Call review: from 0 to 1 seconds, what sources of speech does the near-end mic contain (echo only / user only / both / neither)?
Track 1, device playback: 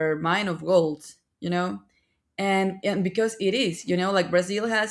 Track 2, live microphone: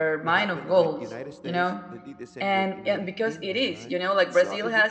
both